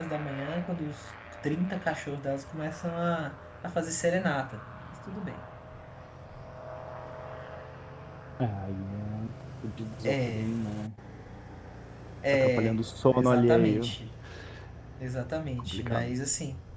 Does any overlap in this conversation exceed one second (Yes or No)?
Yes